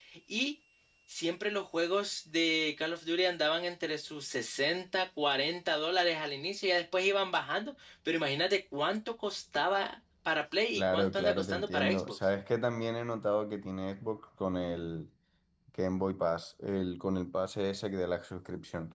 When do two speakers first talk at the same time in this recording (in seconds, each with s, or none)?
10.8 s